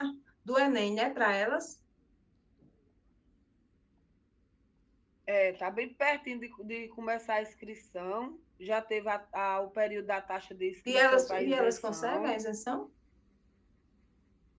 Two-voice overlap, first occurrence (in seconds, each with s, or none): 10.9 s